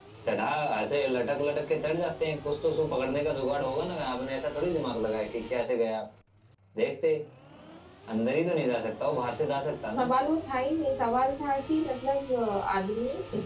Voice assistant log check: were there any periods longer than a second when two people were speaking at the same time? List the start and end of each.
none

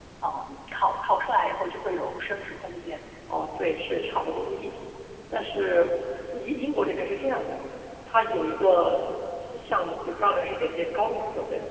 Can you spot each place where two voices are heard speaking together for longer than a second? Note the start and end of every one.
none

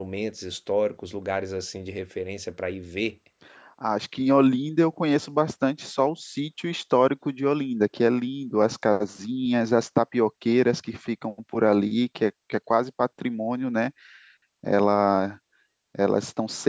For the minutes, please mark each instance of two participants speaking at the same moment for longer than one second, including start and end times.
none

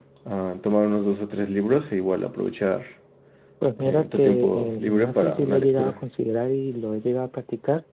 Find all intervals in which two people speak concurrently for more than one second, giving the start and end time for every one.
3.8-6.0

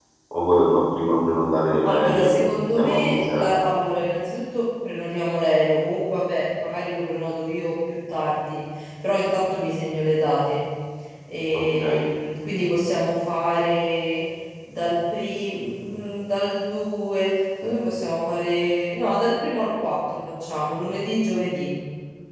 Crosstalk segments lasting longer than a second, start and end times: 1.9-3.5

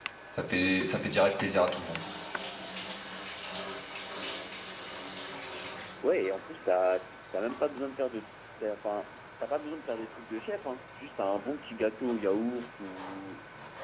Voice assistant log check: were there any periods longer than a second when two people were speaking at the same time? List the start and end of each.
none

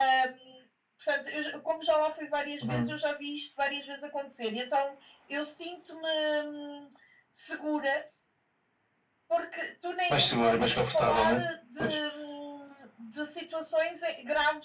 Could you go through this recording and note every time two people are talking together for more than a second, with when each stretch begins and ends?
10.1-11.4

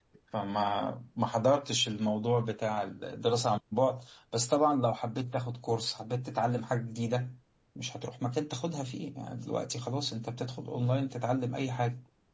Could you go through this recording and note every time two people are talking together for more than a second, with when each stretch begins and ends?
none

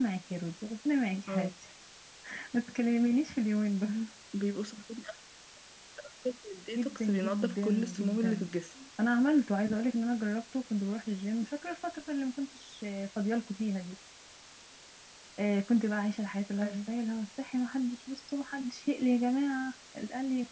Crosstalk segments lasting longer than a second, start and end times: 6.8-8.5

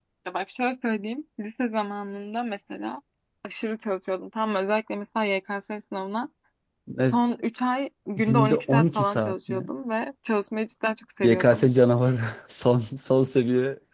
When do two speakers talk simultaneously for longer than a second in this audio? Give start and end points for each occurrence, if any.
8.2-9.6

